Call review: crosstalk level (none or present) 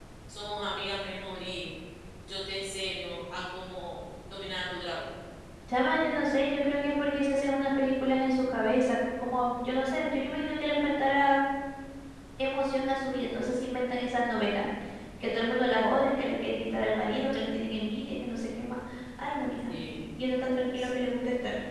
none